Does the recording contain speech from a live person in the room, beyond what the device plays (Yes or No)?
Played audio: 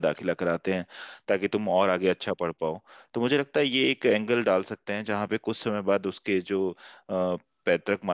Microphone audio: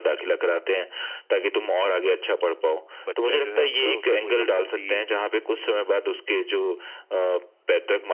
Yes